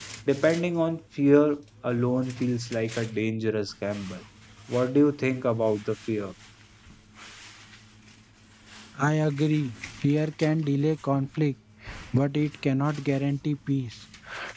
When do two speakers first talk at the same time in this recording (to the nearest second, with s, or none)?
none